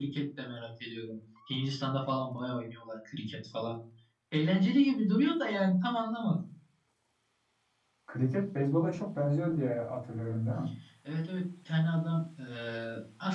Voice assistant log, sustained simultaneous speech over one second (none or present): none